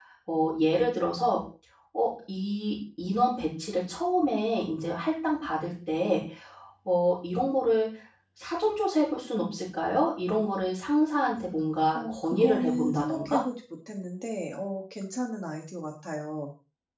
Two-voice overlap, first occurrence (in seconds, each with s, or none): 11.9 s